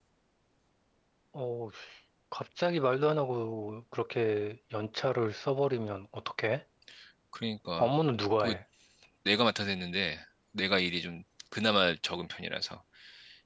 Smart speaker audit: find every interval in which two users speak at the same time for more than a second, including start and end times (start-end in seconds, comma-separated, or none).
none